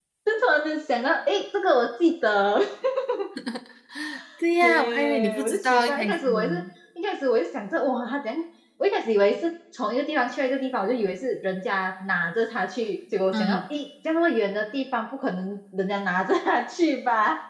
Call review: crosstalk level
present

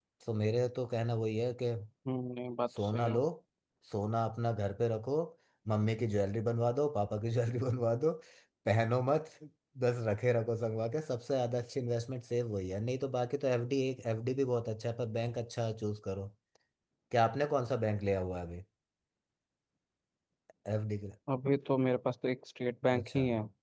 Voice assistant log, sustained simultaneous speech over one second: none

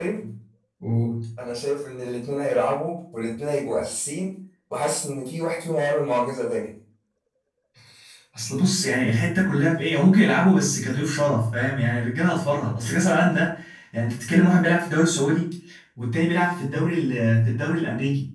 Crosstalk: none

